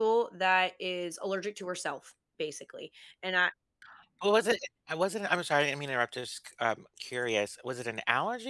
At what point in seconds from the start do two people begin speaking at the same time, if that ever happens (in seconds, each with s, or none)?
none